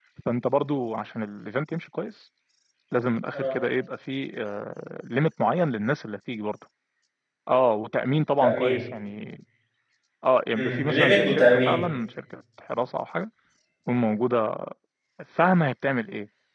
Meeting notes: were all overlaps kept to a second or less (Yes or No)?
No